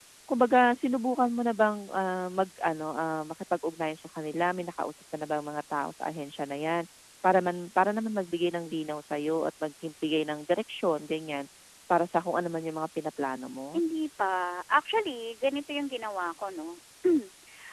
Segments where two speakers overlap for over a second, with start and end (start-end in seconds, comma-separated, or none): none